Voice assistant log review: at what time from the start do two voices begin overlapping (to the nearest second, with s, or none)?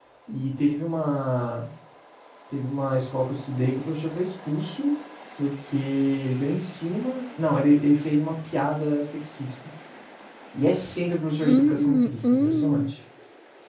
11 s